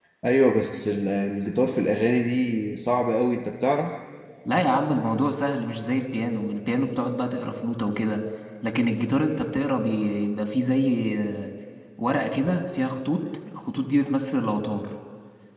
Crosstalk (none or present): none